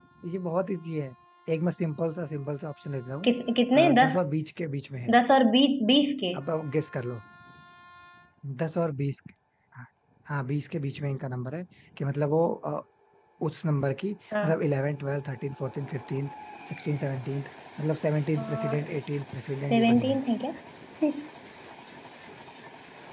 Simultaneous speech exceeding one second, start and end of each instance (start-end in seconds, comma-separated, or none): none